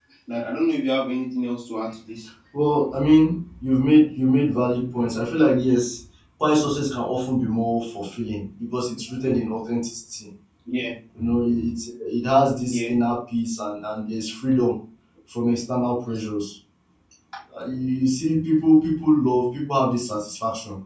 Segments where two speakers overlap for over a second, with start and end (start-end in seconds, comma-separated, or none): none